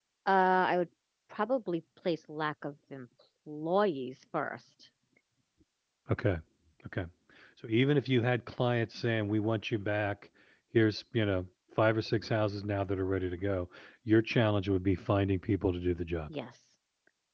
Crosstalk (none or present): none